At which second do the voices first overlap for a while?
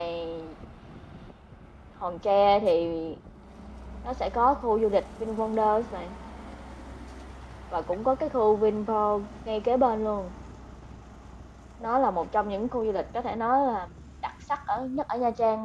none

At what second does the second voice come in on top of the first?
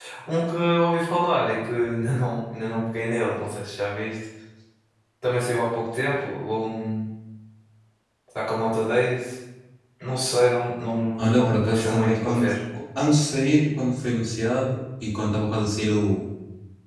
11.2 s

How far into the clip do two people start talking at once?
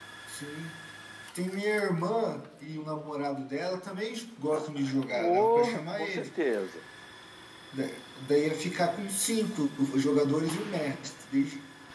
4.5 s

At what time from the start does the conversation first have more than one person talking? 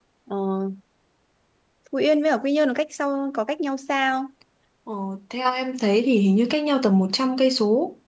none

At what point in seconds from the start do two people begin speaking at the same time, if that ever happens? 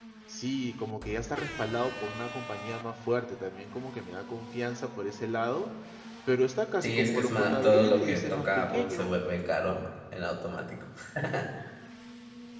6.8 s

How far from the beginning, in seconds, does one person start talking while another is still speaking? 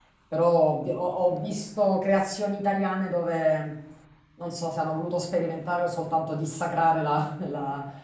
none

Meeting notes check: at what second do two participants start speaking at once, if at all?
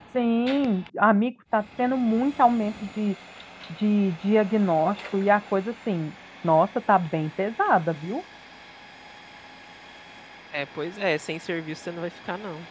none

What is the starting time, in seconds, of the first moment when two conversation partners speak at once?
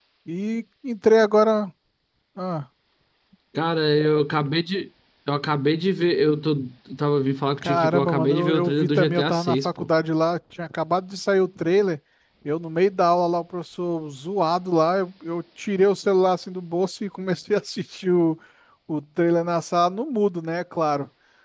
7.6 s

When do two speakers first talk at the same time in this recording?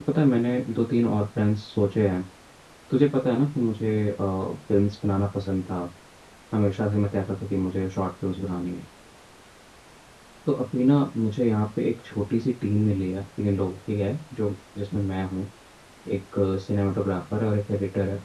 none

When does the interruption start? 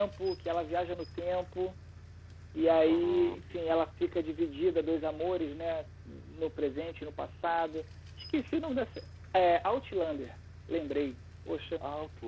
2.9 s

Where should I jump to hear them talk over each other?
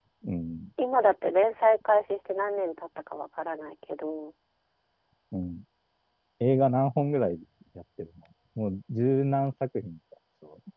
none

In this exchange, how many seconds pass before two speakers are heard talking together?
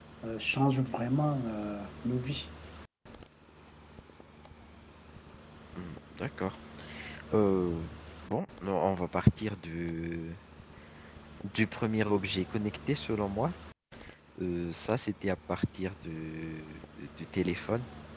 none

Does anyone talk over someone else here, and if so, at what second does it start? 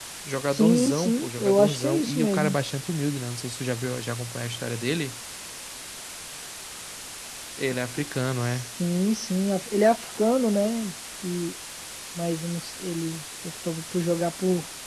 0.5 s

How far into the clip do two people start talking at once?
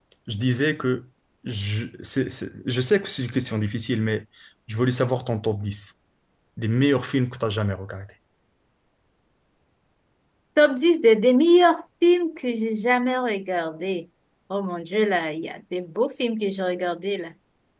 none

